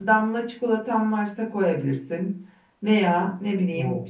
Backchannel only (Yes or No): Yes